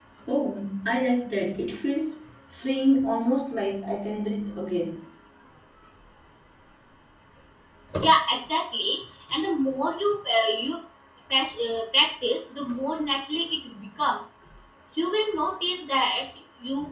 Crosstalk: none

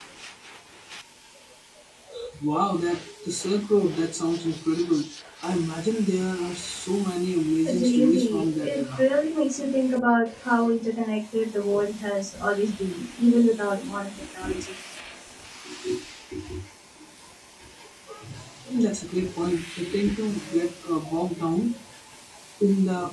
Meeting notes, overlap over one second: present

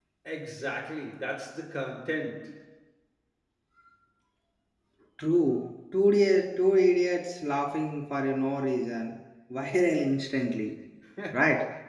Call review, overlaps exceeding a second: none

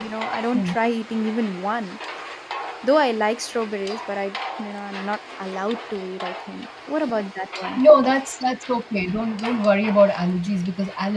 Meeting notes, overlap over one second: none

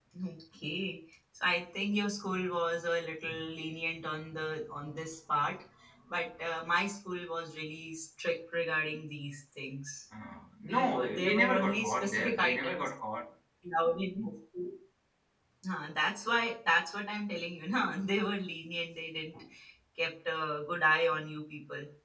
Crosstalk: present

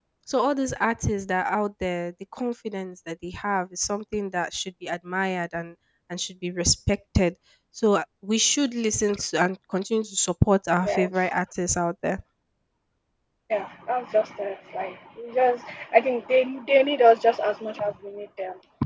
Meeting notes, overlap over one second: none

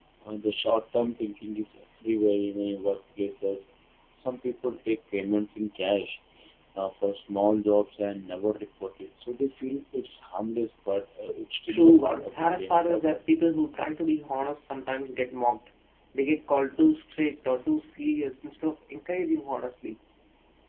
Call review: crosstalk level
present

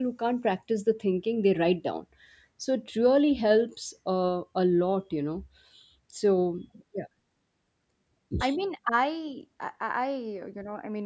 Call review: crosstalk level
none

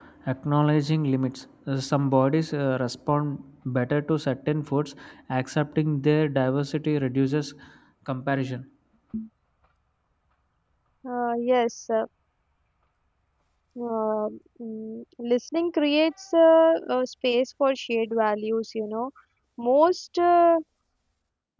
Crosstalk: none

